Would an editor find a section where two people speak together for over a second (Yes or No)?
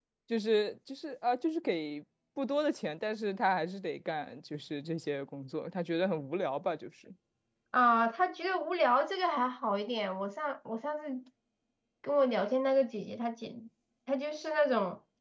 No